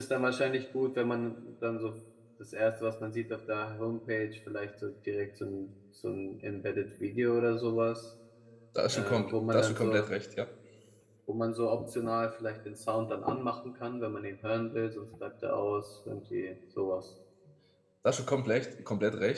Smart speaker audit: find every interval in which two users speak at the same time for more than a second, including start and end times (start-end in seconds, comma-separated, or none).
8.9-10.1